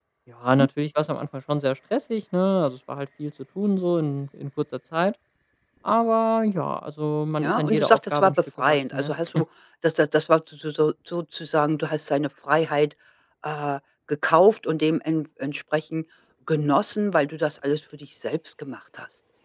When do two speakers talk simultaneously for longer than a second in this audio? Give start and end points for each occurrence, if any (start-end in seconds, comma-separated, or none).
7.4-9.1